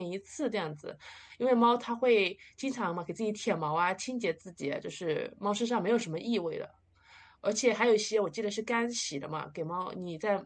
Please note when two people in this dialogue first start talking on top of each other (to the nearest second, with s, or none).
none